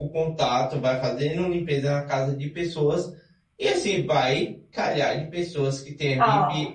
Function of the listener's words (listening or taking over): listening